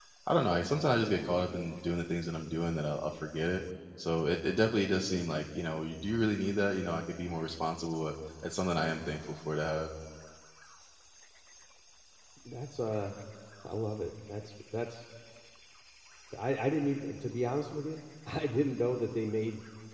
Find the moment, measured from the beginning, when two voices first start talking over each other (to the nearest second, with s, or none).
none